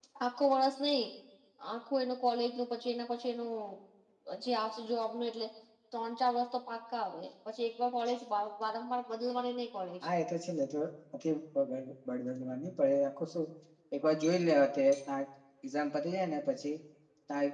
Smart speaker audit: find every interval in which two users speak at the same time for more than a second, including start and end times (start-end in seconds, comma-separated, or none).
none